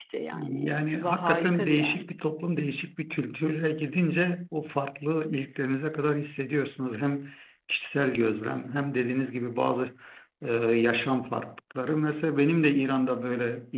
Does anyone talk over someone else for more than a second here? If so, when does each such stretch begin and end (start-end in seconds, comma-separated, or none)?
0.6-2.1